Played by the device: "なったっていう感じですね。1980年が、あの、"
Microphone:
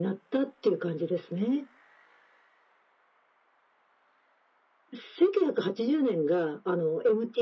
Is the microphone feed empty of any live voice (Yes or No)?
Yes